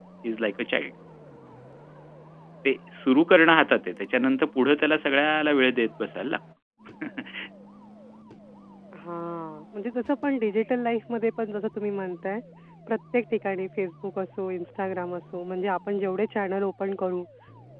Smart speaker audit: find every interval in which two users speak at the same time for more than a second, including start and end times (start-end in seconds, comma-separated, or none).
none